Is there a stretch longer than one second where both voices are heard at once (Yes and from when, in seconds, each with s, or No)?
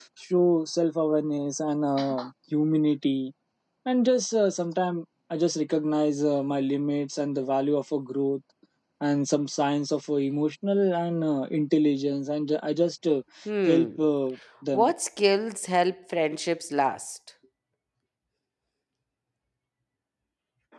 No